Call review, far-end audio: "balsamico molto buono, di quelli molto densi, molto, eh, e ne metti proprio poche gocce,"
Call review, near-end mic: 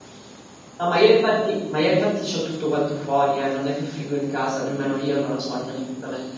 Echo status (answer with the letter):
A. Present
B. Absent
B